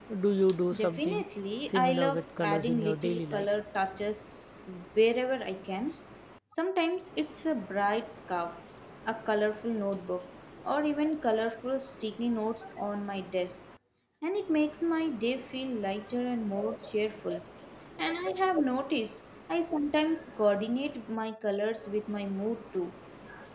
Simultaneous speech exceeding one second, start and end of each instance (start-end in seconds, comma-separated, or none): 1.7-3.5